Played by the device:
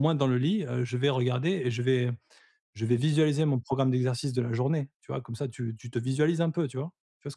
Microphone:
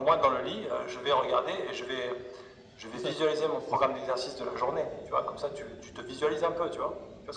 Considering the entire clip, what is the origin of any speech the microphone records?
both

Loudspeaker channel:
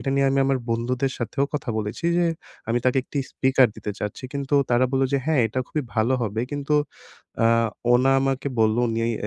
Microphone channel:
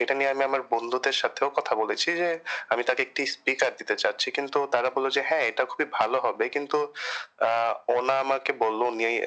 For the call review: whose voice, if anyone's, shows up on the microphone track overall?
echo only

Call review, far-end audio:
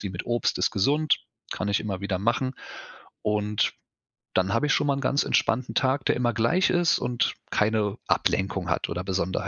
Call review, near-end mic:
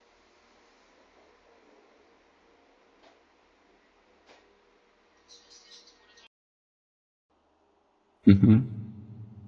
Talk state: user only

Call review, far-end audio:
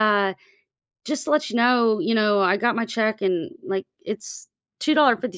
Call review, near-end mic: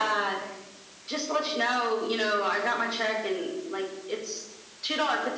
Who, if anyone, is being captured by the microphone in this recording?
echo only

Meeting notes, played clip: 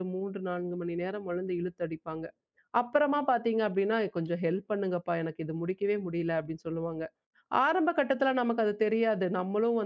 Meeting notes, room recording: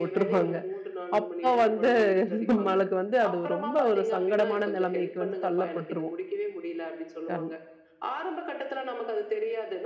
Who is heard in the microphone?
both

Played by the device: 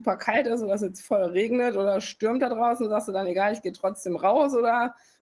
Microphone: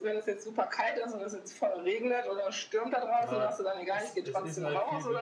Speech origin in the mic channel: both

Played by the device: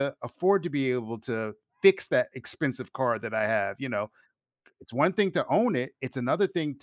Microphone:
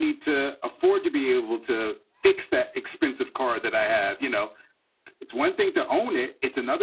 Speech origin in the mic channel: echo only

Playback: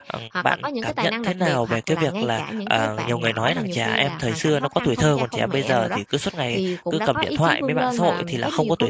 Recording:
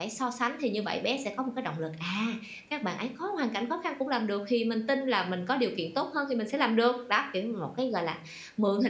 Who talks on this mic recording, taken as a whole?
user only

